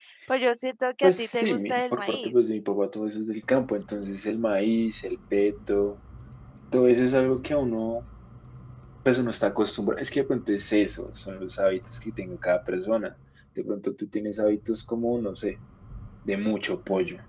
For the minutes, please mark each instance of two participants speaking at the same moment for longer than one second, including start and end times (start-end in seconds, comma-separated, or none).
1.0-2.3